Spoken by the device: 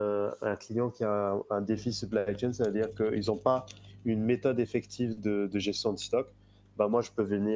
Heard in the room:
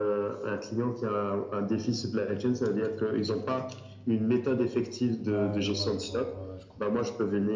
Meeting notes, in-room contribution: present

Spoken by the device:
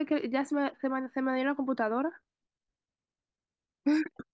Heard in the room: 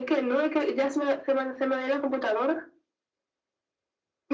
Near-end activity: none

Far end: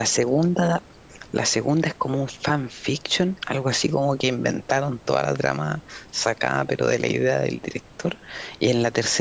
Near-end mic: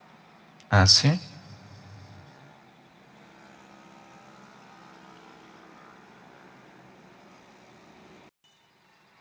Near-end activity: present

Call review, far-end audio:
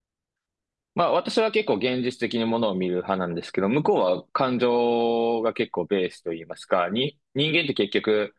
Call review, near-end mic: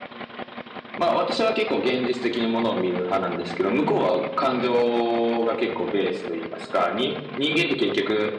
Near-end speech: none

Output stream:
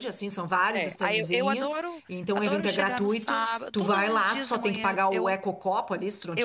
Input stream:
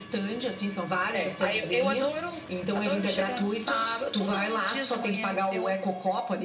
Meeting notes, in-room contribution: none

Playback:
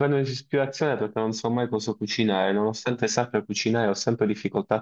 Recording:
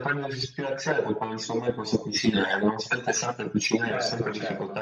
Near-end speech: present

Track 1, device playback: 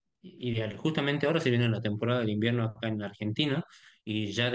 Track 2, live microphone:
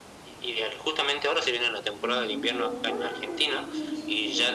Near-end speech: present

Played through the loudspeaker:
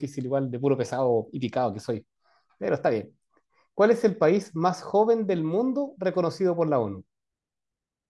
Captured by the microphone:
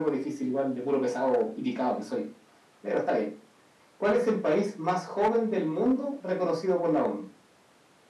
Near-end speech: none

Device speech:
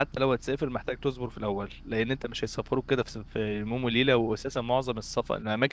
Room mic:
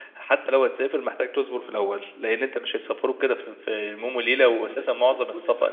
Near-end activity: present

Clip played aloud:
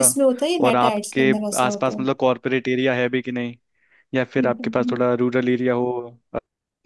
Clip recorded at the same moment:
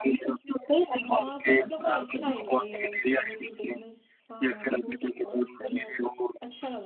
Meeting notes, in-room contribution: present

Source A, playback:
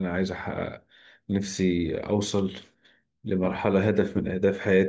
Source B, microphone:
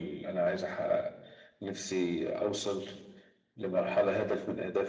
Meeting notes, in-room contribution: none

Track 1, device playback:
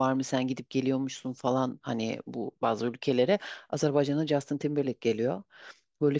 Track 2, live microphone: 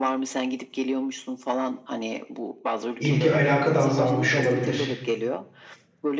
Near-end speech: present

